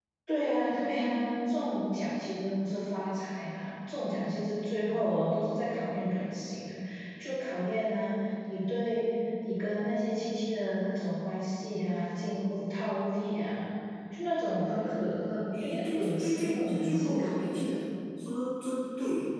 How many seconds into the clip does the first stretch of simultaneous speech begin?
15.5 s

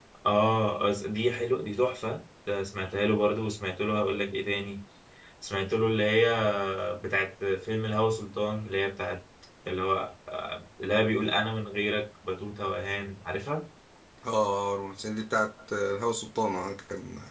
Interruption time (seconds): none

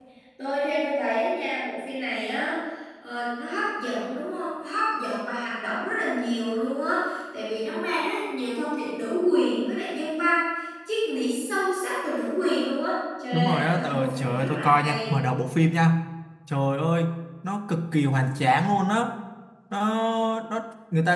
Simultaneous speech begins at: 13.3 s

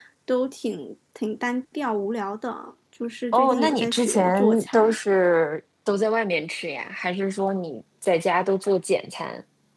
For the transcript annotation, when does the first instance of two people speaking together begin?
3.3 s

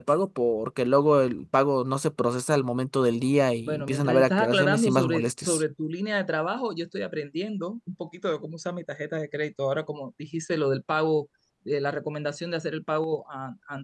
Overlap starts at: 3.6 s

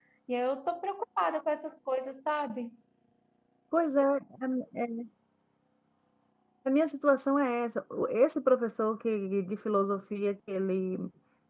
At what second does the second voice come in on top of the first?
none

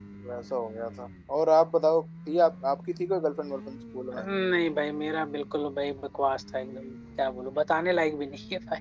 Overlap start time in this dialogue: none

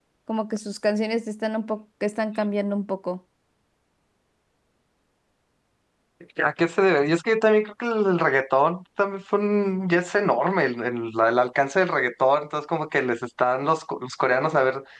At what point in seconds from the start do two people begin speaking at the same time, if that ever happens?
none

